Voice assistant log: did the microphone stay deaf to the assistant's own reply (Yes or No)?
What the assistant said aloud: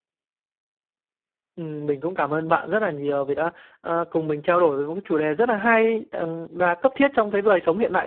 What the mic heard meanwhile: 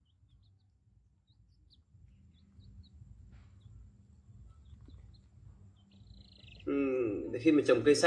Yes